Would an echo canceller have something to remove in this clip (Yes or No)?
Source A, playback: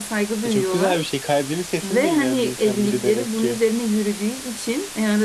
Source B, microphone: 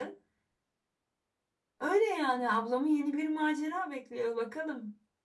No